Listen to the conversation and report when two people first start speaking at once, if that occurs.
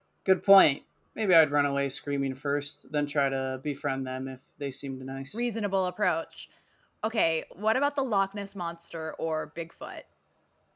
none

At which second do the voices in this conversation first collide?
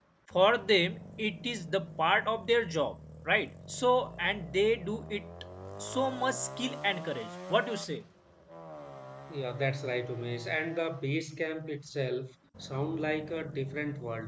none

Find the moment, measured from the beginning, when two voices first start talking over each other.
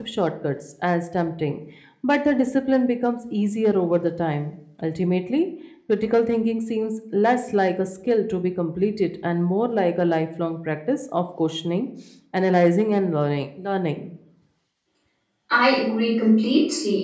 none

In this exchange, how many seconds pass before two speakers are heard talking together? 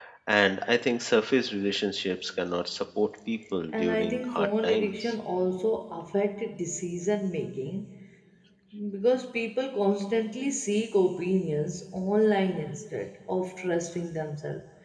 3.7 s

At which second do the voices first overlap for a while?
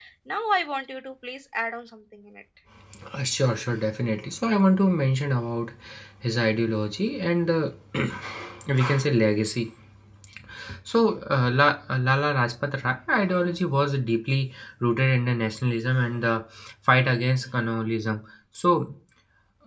none

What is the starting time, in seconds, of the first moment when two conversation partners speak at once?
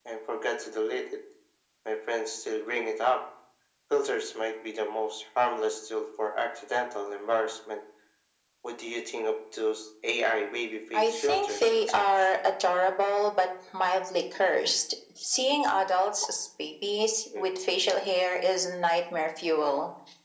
10.9 s

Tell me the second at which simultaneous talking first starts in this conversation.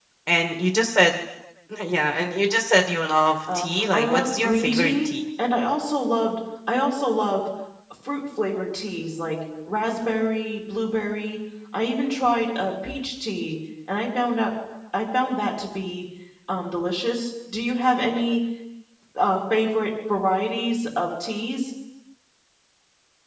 3.5 s

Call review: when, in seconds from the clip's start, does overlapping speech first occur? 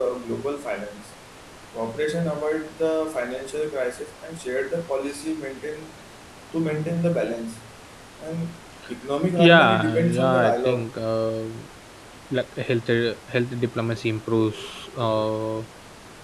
9.5 s

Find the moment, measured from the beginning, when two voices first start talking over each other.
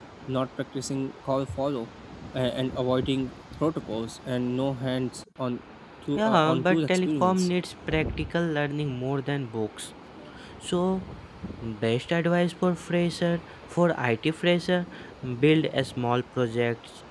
6.2 s

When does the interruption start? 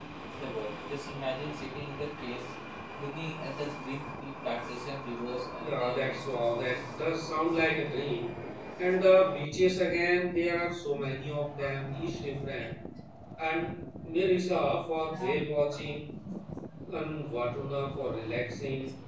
5.6 s

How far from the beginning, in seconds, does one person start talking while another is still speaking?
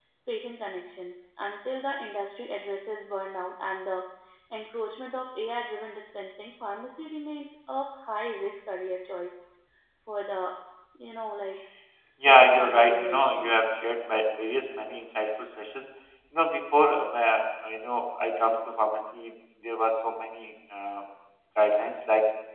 12.2 s

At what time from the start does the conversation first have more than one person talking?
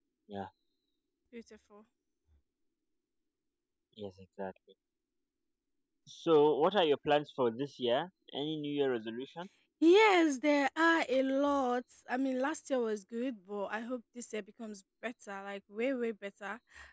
none

